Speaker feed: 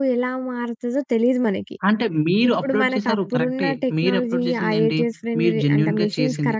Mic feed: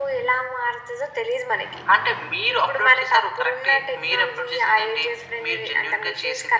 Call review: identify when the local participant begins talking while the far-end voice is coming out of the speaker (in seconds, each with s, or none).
none